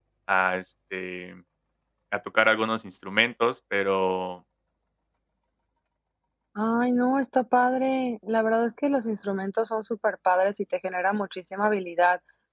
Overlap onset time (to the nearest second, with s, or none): none